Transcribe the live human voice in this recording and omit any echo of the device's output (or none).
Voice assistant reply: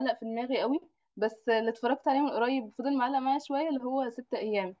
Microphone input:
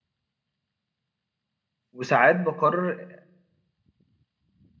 وساعات بقرر